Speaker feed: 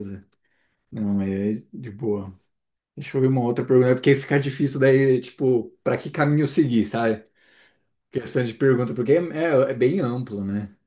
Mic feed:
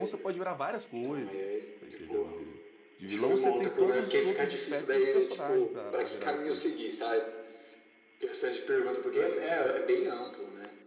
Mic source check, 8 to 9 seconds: echo only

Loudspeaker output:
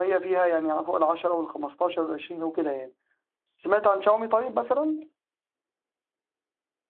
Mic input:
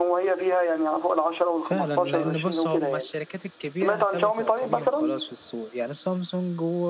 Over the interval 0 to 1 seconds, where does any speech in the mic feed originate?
echo only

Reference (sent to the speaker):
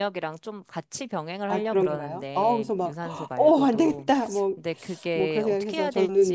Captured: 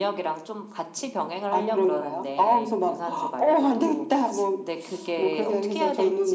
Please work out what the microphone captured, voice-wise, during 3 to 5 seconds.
echo only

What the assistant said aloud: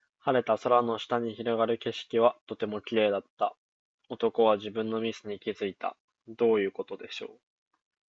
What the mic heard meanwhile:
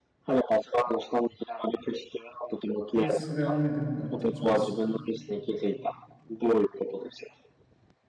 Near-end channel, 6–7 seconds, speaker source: echo only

